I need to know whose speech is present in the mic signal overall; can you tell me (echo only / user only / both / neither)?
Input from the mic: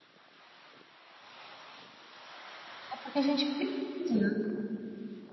user only